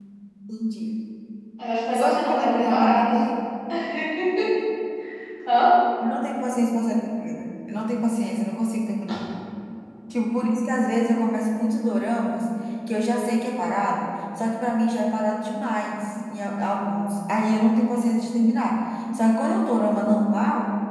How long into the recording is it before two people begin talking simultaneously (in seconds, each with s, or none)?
1.9 s